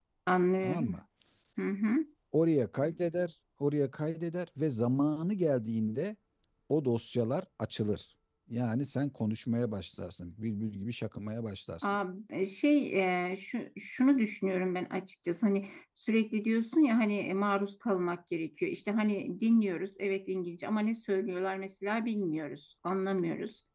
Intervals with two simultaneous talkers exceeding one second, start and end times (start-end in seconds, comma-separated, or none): none